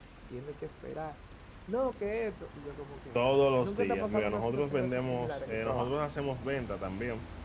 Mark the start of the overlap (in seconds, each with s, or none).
3.1 s